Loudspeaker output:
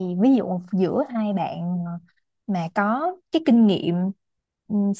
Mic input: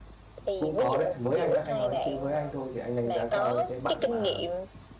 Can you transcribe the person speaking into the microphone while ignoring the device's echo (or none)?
cũng có đấy với anh nhá anh nói chứ với anh thôi thì anh đánh giá cao những cái bạn mà